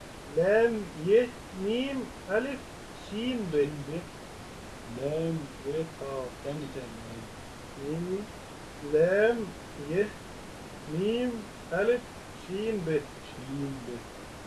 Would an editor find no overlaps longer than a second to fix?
Yes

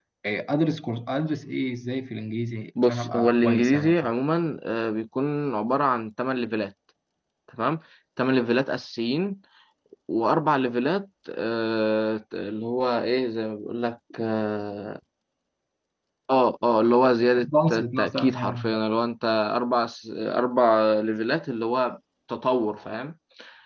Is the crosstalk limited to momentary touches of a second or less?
No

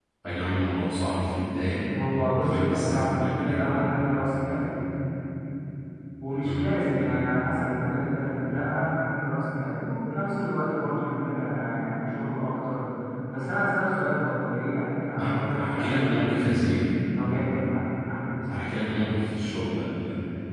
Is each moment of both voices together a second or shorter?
No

